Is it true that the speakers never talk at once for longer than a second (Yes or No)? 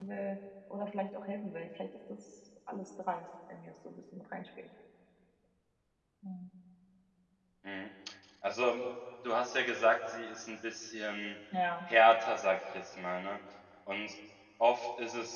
Yes